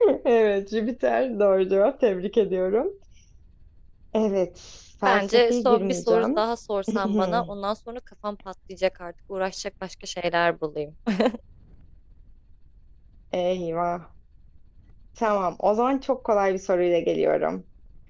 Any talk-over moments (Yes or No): Yes